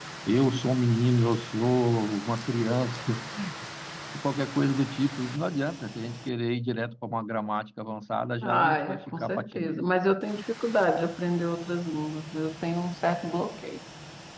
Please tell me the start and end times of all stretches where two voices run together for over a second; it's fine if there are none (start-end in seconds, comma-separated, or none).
8.4-9.8